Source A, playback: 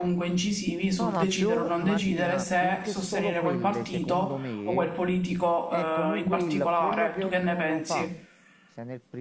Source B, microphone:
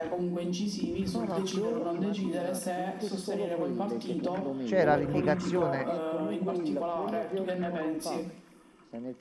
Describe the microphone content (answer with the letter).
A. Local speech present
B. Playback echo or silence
A